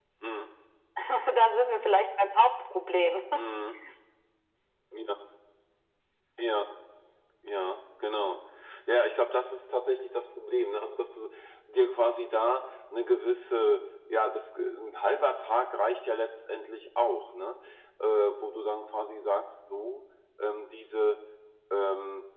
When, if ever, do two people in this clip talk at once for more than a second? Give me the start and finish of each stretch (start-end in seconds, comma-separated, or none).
none